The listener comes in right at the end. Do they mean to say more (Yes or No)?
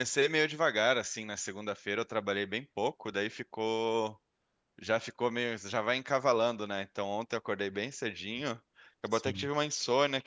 No